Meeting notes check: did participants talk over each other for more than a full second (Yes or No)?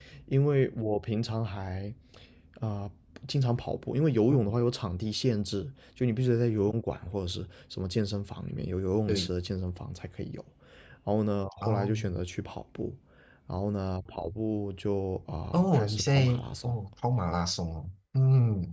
Yes